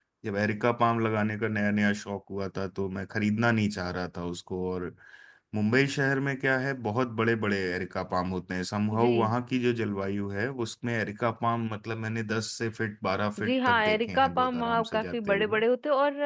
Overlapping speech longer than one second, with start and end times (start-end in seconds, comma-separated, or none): 13.5-15.6